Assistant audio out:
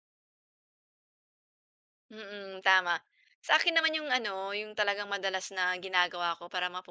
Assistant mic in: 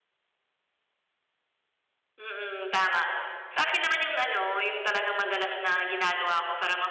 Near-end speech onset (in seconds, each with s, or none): none